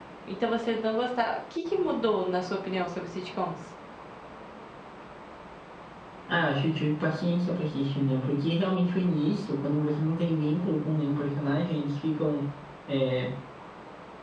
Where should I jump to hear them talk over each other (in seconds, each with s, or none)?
none